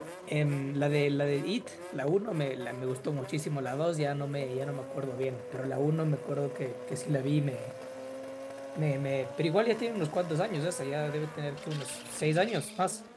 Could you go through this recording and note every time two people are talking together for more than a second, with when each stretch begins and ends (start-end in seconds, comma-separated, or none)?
none